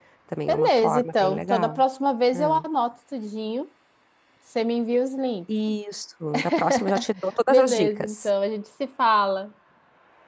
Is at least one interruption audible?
Yes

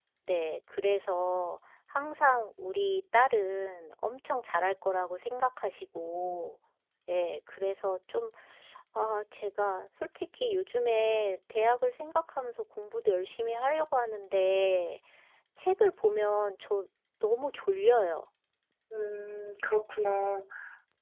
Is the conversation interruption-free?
Yes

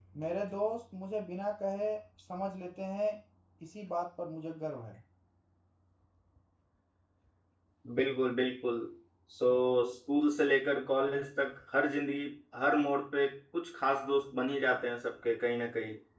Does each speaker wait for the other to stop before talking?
Yes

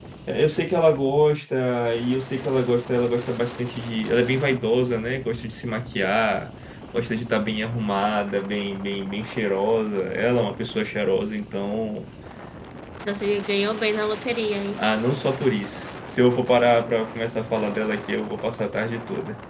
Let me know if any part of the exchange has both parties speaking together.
No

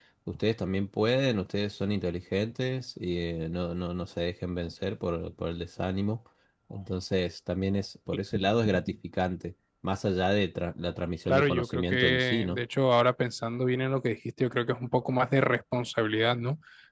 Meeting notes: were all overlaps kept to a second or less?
No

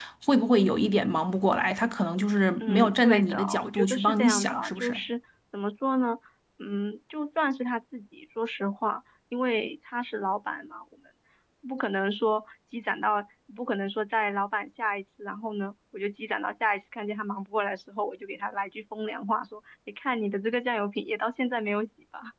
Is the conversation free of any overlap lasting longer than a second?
No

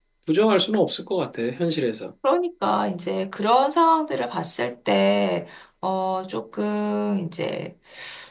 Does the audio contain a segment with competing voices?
No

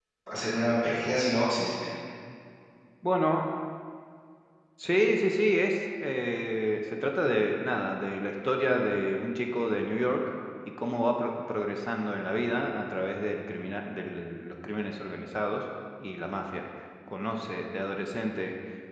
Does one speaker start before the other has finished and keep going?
No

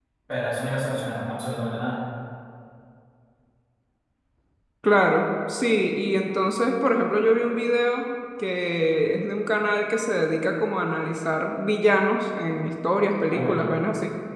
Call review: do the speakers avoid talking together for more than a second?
Yes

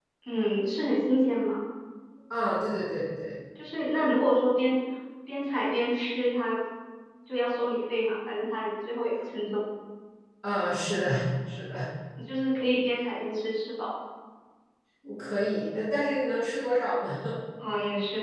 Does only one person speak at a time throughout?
Yes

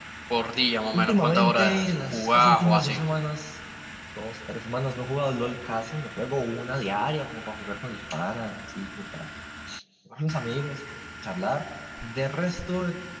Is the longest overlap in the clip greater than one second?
Yes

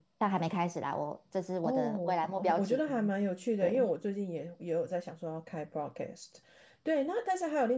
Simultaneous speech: Yes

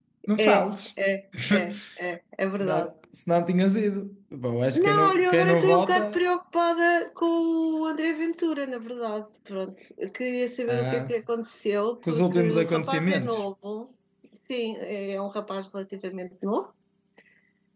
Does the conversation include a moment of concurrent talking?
Yes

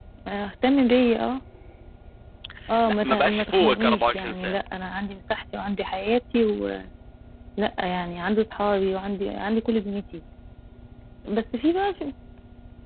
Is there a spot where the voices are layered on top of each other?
Yes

